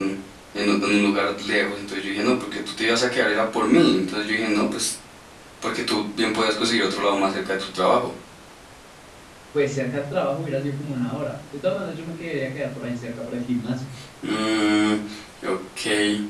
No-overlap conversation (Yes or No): Yes